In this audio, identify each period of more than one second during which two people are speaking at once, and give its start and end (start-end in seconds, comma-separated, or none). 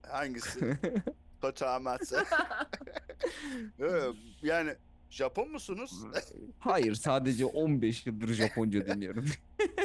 none